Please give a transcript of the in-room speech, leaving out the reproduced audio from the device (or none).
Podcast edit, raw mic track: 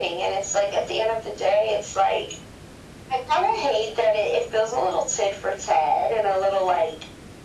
none